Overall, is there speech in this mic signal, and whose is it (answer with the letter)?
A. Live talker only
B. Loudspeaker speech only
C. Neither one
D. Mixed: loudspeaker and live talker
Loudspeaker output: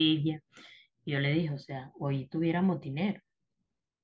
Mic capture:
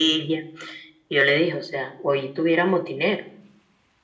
B